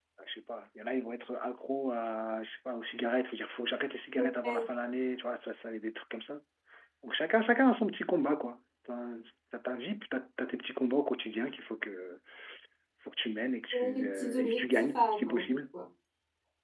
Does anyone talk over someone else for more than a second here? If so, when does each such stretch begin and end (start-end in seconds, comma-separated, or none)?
13.7-15.5